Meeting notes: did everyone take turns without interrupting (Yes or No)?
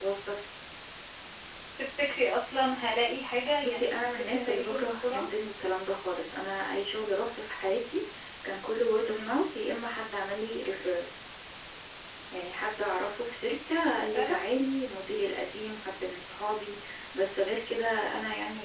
No